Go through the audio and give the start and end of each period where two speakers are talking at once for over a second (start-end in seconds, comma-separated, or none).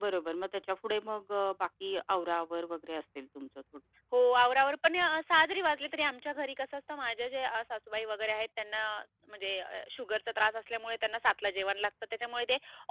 none